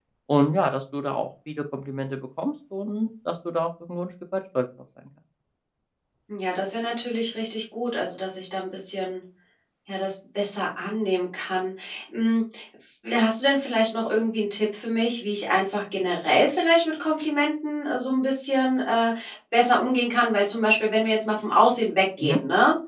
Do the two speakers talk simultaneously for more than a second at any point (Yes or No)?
No